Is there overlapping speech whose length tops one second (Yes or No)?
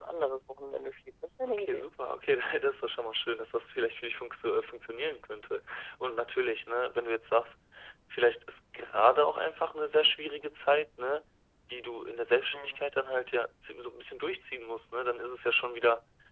No